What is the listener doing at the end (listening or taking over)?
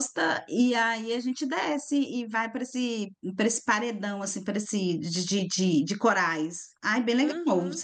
taking over